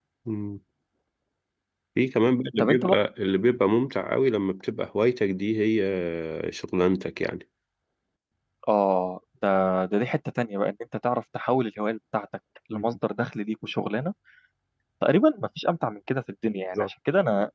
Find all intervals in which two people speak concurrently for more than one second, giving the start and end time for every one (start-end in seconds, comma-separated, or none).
none